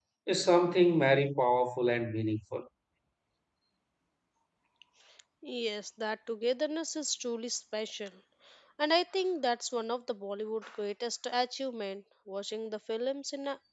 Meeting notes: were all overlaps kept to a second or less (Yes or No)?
Yes